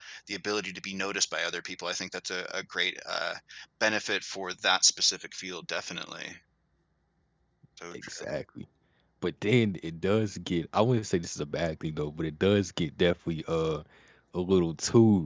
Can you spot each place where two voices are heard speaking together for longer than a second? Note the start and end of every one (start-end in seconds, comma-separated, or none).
none